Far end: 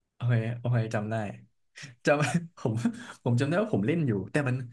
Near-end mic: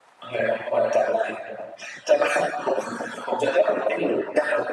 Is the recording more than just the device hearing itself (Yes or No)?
No